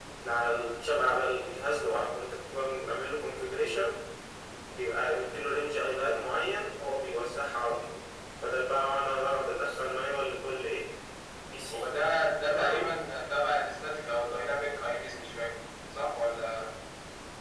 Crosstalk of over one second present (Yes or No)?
No